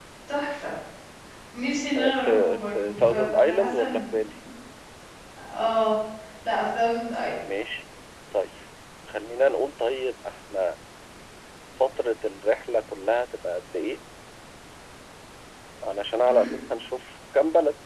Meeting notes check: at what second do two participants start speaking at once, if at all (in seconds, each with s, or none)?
2.0 s